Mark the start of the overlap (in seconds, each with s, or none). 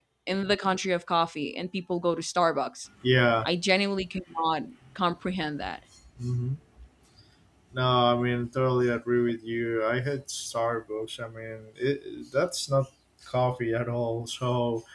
none